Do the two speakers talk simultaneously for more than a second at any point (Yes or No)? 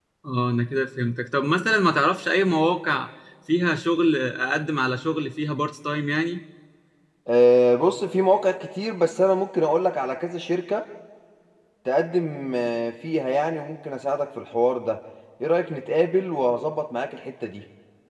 No